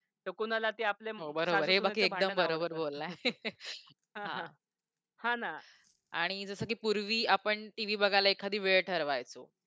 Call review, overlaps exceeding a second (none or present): present